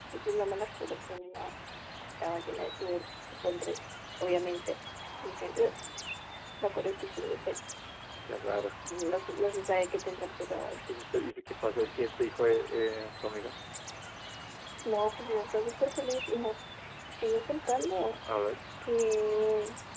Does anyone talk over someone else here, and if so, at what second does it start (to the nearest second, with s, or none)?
none